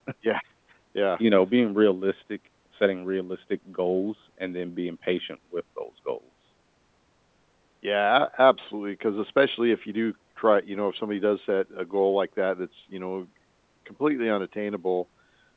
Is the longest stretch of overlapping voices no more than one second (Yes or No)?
Yes